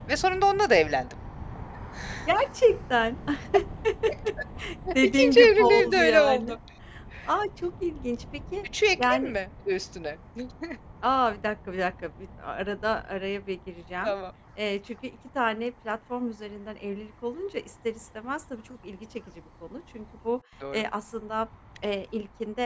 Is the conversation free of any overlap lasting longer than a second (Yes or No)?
No